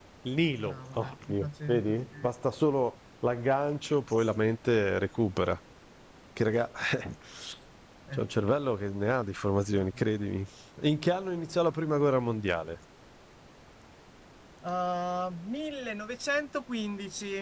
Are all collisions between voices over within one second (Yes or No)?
No